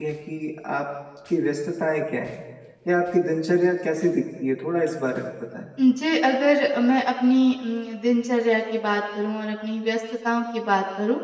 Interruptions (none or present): none